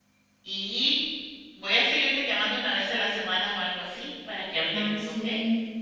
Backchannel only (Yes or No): No